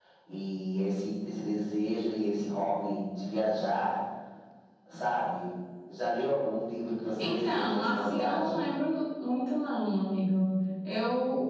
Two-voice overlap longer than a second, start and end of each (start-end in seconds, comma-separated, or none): 7.2-8.6